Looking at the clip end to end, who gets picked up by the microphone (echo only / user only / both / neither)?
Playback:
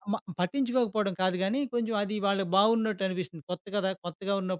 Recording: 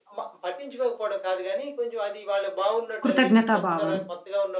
both